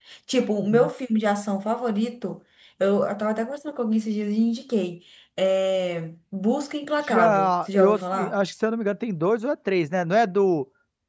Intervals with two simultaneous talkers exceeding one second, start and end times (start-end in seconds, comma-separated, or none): 7.0-8.4